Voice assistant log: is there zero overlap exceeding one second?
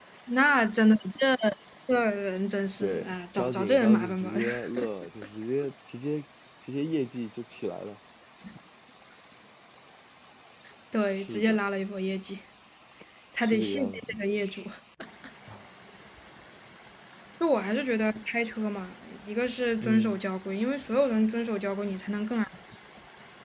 No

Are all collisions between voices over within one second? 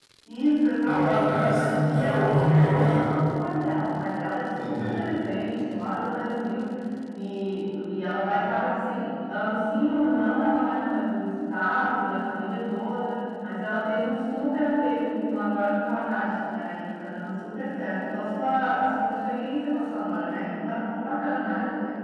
No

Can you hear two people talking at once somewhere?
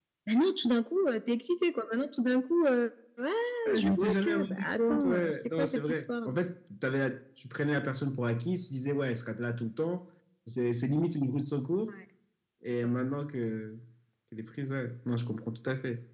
Yes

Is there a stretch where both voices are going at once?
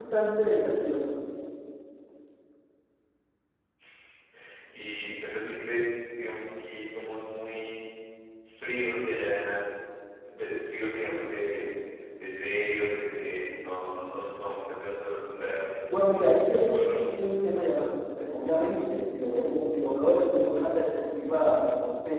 Yes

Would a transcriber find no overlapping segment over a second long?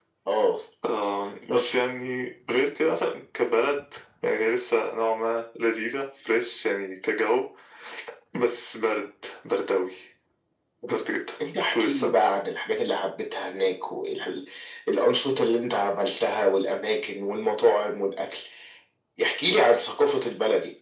Yes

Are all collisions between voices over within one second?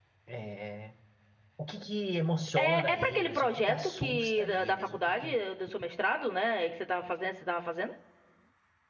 No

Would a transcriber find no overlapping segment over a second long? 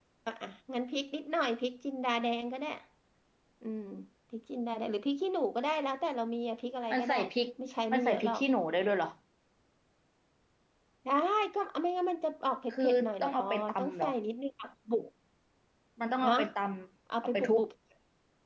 No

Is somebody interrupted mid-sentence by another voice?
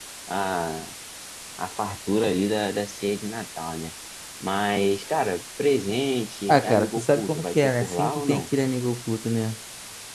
Yes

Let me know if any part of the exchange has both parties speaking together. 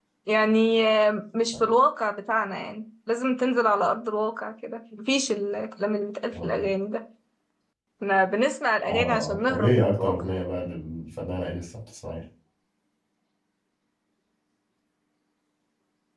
Yes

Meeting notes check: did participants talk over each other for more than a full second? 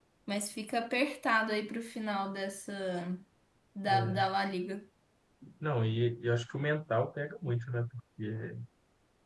No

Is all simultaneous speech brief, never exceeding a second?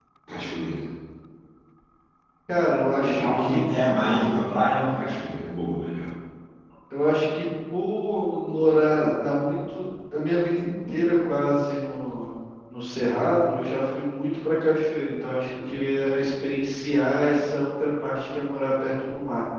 No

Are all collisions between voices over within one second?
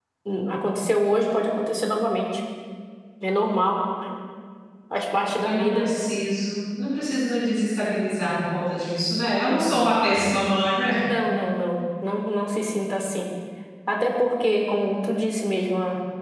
Yes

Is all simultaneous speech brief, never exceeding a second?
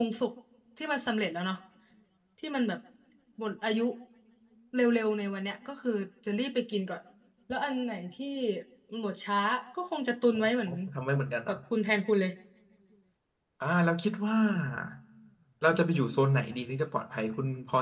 Yes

